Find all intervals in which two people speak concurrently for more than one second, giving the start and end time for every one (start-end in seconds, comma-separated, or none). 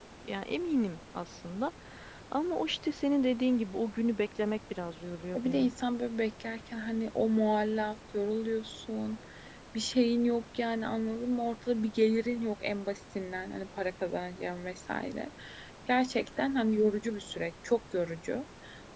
none